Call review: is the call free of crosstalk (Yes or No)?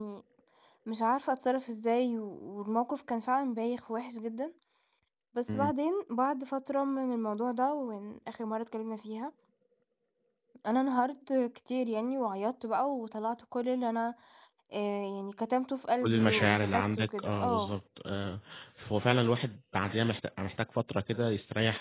No